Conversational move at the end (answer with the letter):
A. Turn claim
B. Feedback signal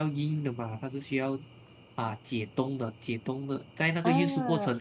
B